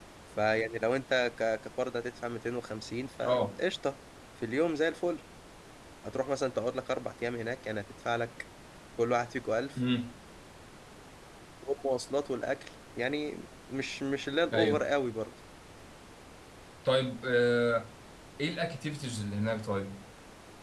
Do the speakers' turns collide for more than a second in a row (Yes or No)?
No